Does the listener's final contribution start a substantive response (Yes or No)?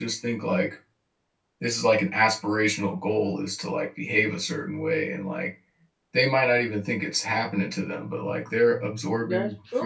Yes